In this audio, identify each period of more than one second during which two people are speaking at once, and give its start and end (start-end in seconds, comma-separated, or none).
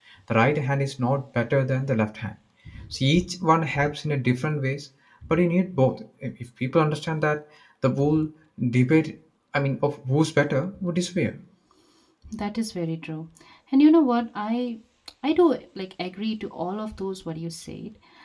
none